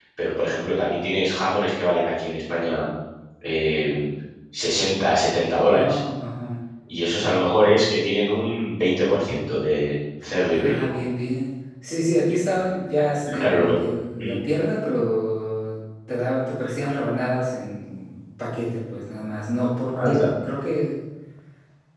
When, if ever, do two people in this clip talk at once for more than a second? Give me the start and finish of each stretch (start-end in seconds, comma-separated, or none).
none